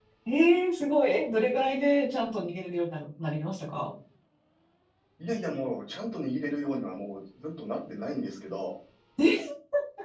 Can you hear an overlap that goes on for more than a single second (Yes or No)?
No